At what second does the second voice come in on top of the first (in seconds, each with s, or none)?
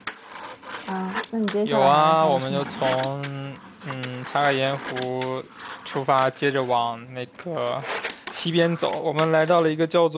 1.6 s